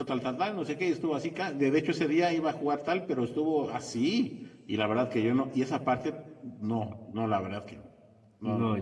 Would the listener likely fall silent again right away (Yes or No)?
No